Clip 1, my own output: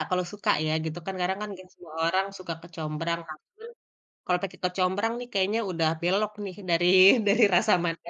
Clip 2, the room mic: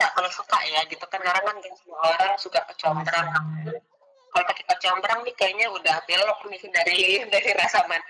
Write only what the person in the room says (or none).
Sama-sama.